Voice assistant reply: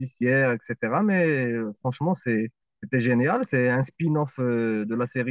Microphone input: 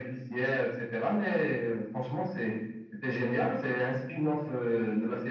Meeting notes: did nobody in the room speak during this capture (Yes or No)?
Yes